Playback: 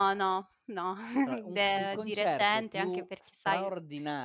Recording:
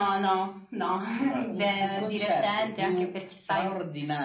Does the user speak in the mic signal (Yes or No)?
No